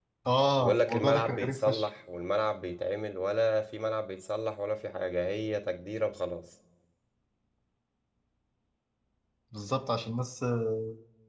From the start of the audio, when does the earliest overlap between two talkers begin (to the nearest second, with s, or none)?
1 s